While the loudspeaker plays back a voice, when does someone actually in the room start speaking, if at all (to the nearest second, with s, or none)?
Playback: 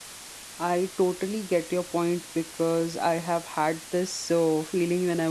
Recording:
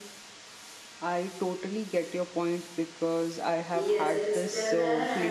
4 s